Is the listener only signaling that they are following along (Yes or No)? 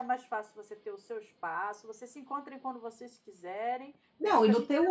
No